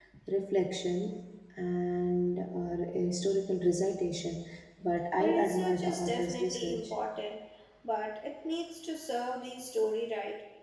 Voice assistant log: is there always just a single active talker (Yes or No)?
No